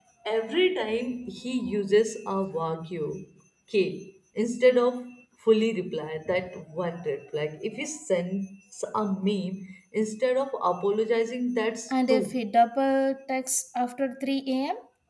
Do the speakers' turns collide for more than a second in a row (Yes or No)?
No